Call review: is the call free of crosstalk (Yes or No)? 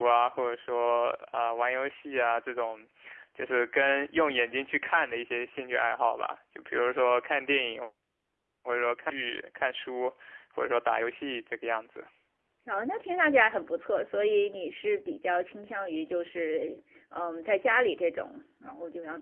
Yes